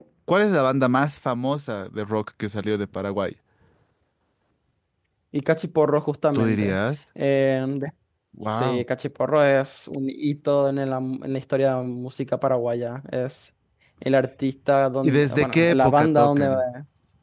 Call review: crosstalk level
present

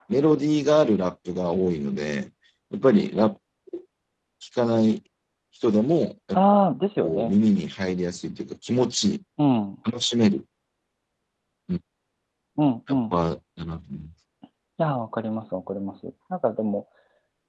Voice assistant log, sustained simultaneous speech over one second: none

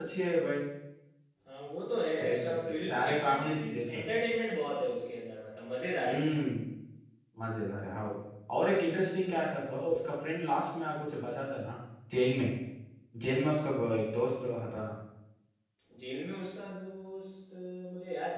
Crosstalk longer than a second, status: present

